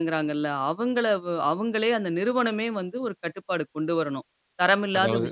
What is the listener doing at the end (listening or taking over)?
listening